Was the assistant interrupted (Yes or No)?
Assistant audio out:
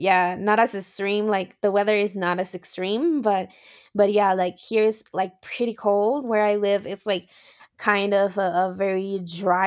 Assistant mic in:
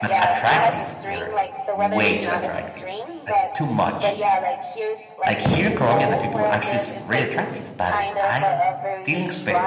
Yes